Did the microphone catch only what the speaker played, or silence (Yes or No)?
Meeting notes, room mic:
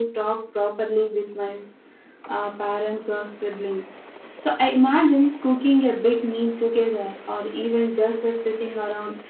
Yes